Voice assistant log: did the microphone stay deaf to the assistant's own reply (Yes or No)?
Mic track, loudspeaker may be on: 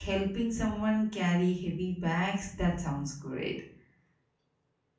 Yes